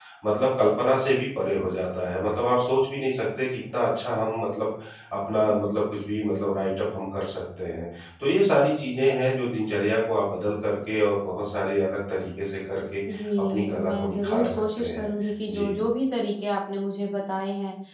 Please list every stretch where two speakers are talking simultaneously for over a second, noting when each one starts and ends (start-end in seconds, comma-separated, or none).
13.5-15.1